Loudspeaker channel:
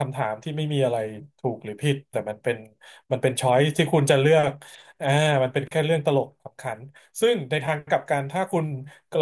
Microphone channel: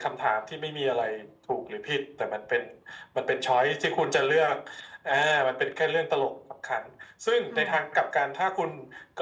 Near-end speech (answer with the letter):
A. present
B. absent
A